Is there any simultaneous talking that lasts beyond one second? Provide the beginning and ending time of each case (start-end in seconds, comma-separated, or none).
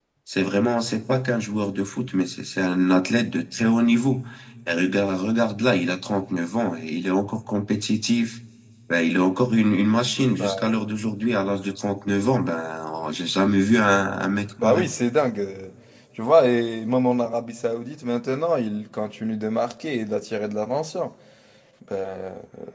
none